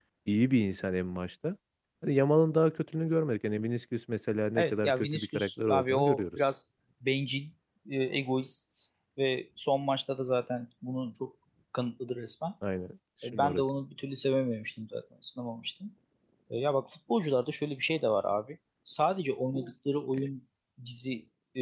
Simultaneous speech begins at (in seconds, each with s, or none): 4.6 s